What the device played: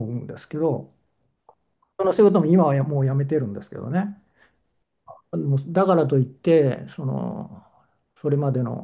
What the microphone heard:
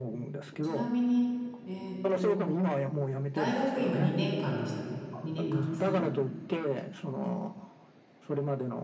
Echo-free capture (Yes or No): No